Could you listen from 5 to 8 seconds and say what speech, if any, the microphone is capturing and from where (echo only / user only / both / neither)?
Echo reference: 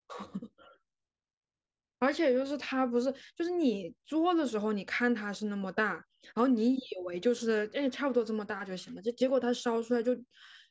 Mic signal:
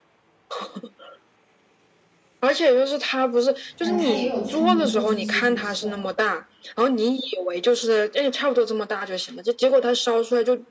both